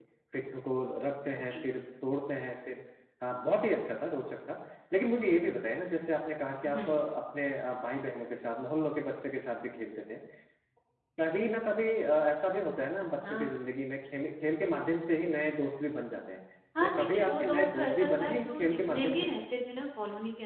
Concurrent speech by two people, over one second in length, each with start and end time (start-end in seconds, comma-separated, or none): 16.8-19.3